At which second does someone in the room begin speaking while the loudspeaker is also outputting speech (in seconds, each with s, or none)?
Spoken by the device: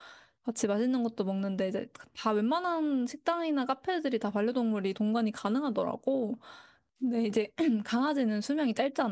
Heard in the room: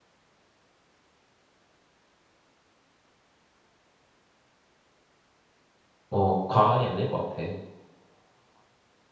6.1 s